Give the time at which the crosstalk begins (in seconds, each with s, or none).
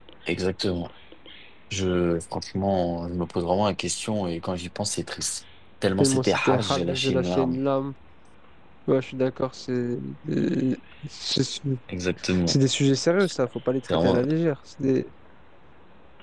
6.0 s